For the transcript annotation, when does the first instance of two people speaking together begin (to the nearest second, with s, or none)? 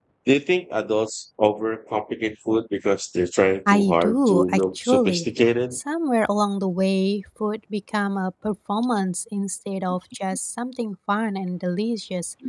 4 s